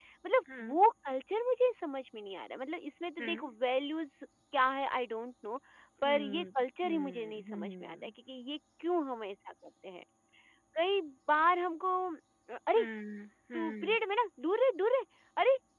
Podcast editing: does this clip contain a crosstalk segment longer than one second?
Yes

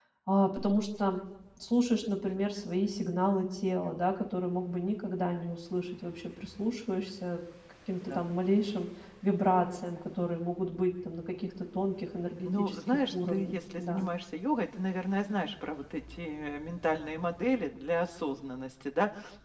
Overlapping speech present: Yes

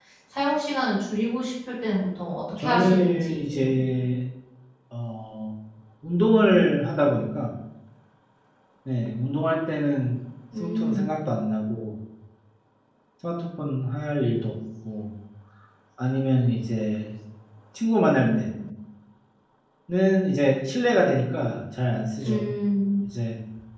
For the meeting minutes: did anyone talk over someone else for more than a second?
Yes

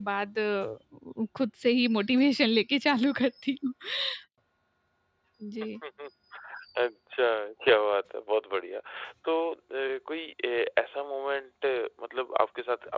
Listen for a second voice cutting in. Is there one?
No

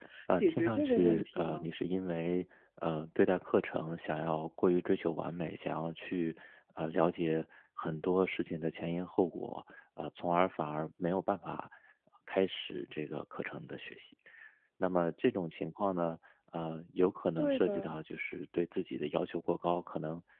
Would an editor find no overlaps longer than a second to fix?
No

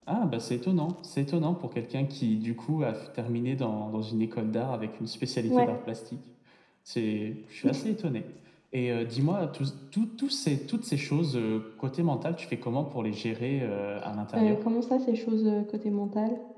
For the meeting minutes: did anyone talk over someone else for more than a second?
No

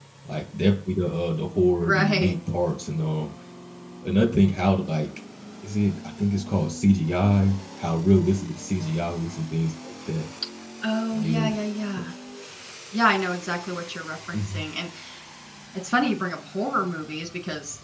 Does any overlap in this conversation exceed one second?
No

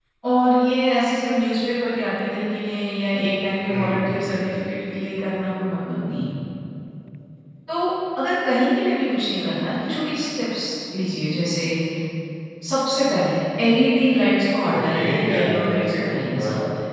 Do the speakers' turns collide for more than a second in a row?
Yes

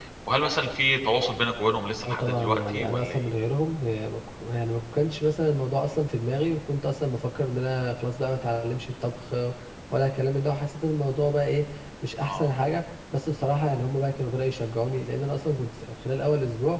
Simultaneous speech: Yes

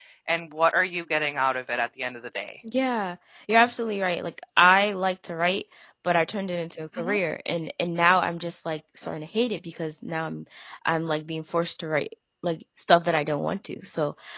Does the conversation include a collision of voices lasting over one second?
No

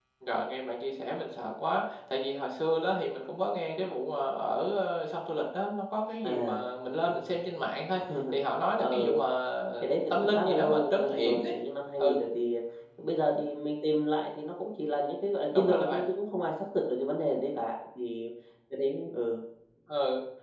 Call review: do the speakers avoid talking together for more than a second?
No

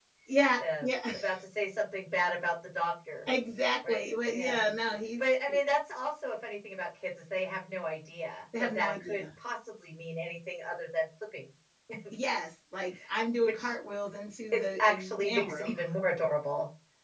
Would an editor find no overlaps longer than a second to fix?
No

